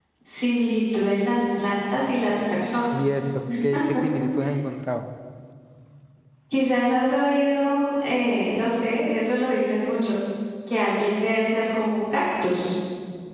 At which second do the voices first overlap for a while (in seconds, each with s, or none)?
none